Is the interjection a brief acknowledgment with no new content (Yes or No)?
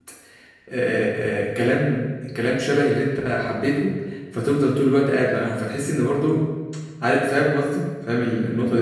No